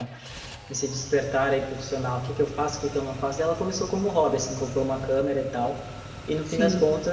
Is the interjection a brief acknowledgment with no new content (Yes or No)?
Yes